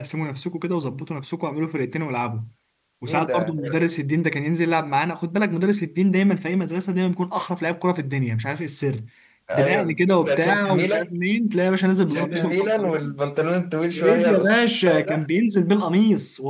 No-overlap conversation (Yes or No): No